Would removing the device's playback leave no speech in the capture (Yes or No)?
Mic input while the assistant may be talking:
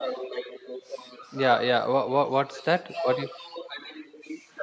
No